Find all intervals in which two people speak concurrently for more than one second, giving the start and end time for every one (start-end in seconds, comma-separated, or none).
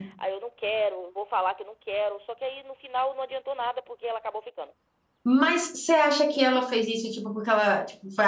none